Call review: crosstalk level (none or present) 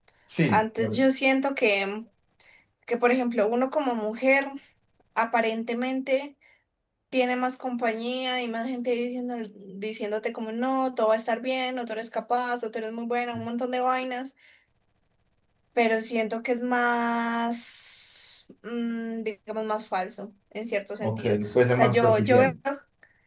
present